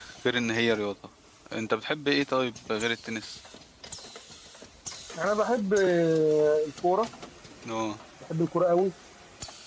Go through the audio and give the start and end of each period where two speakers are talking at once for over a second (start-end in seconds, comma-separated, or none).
none